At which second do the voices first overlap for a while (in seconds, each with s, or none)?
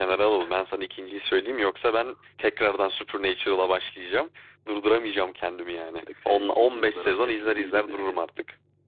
6.1 s